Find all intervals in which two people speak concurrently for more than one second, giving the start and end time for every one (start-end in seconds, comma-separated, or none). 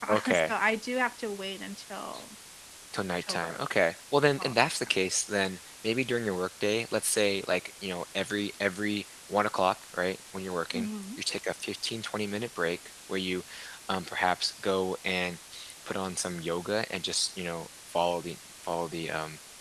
none